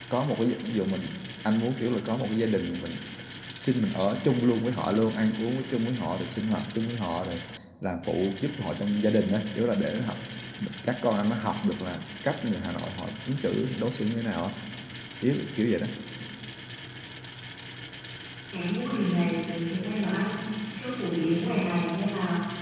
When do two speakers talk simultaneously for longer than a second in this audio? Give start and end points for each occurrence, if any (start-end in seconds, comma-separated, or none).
none